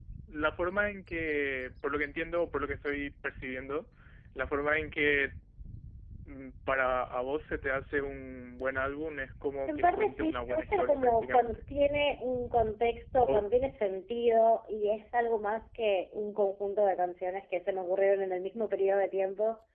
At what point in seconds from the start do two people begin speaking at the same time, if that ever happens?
10 s

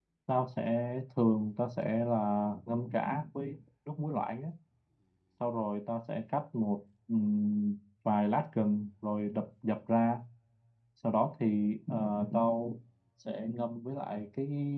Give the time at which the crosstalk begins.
none

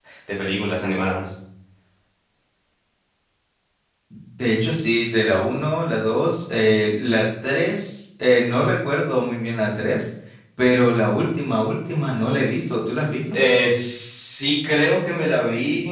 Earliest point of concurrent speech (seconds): none

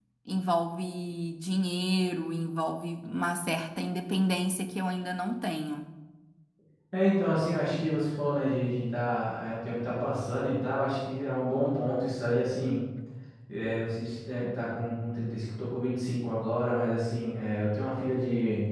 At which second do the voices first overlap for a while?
none

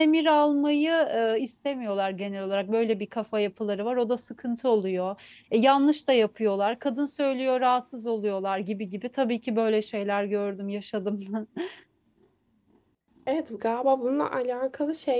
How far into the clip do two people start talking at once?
none

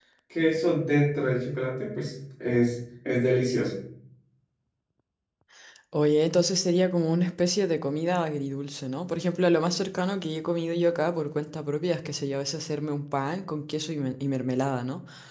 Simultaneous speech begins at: none

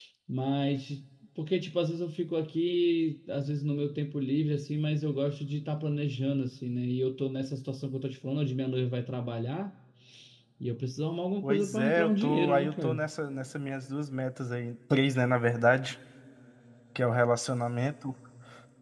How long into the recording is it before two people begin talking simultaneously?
11 s

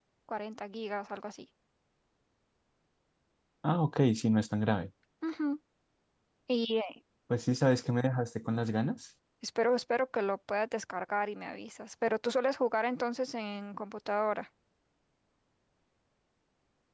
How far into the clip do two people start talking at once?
none

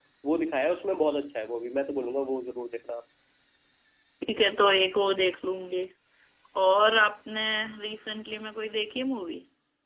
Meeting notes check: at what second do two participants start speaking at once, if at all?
none

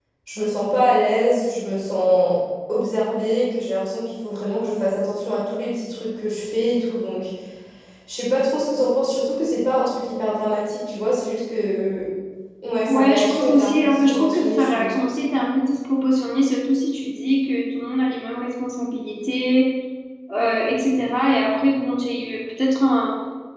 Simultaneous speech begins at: 13 s

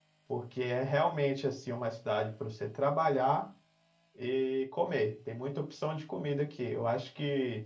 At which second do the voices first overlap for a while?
none

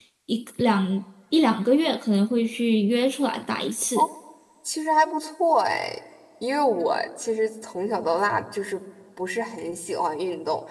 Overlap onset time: none

